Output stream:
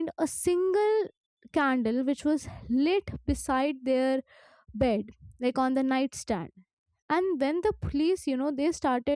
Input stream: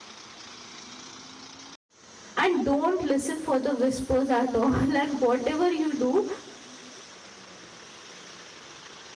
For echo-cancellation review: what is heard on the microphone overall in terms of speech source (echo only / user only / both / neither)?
user only